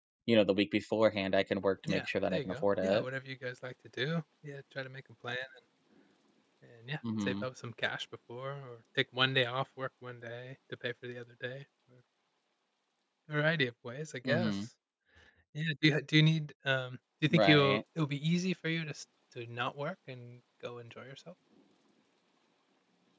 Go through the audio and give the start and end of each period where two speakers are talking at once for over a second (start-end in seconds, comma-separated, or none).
1.8-3.0